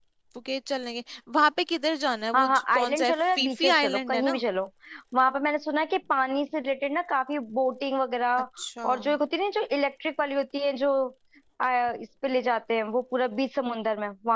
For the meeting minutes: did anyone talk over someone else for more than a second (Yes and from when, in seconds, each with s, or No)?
Yes, from 2.3 s